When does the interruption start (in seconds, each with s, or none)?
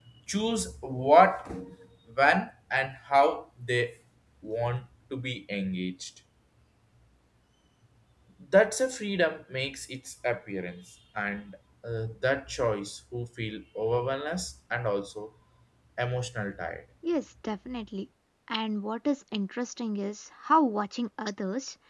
none